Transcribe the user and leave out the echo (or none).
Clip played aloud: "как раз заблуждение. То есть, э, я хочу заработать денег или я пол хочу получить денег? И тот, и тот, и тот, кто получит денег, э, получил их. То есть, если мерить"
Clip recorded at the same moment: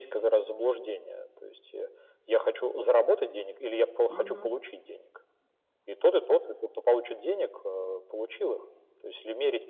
Мгм.